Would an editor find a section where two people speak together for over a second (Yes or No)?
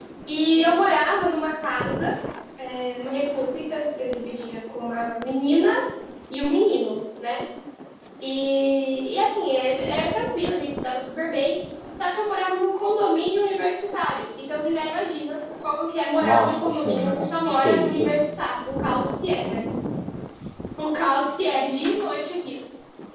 Yes